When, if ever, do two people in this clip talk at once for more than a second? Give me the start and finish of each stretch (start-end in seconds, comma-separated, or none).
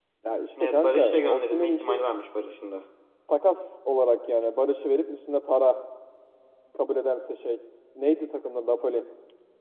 0.6-2.0